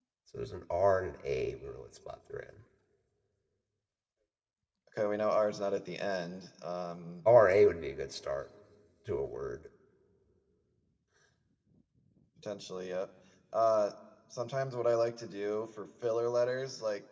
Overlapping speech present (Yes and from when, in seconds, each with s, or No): No